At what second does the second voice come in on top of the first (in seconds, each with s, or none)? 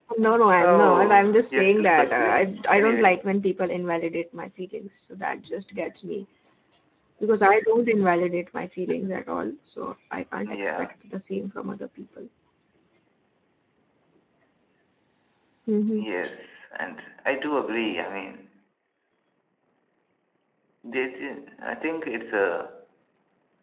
0.6 s